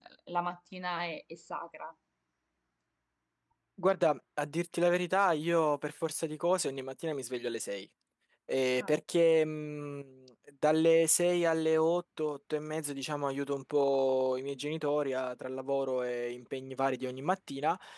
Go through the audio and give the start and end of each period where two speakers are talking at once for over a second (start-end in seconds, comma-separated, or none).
none